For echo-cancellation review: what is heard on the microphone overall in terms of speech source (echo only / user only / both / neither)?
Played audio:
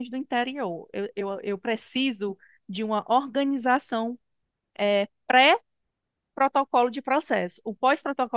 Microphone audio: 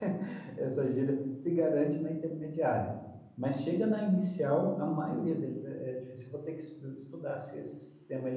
user only